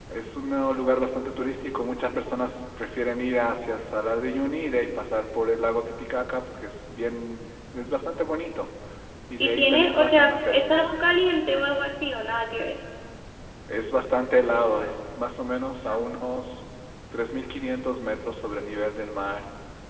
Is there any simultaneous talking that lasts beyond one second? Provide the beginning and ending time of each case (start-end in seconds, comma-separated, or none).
9.4-10.7